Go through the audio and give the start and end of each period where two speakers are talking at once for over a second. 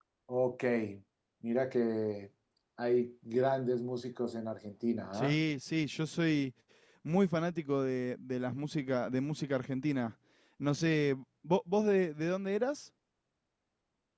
none

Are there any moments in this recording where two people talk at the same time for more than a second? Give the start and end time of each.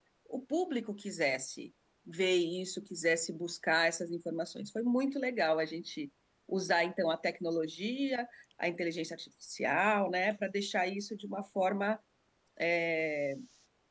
none

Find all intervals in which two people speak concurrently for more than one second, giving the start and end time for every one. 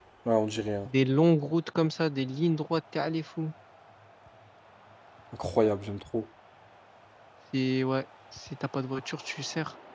none

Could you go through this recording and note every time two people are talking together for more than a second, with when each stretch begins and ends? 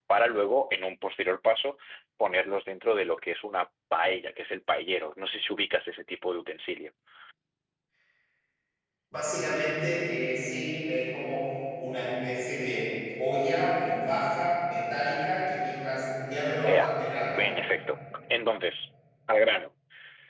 none

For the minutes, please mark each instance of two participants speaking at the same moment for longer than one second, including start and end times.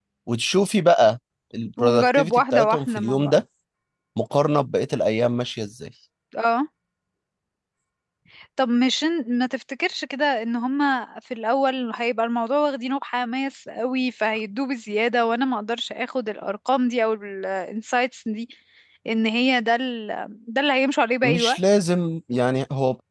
1.8-3.4

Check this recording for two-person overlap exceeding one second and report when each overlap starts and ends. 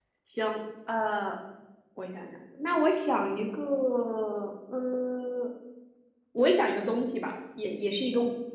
none

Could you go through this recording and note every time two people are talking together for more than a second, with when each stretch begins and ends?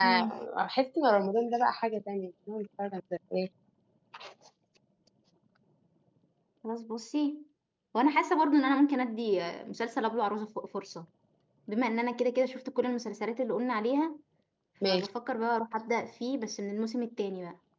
none

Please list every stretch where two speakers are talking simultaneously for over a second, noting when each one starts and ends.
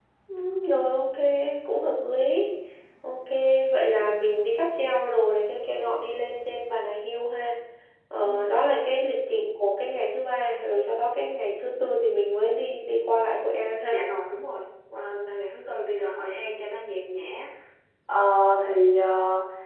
none

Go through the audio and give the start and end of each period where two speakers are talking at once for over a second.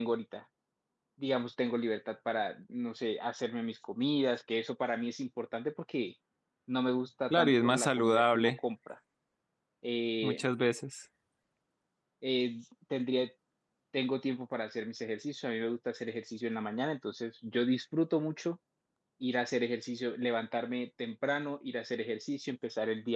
7.3-8.5

